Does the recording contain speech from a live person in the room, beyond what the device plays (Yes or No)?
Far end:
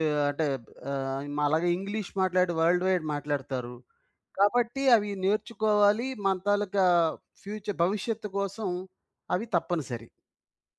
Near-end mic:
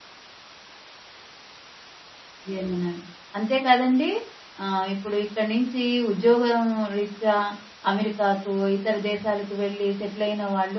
Yes